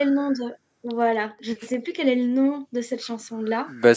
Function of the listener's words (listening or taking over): taking over